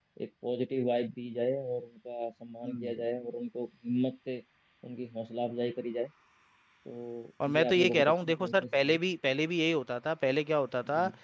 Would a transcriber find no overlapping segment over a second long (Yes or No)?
No